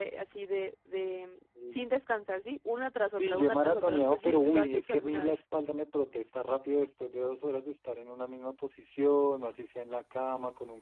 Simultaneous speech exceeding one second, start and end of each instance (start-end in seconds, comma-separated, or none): 3.2-5.3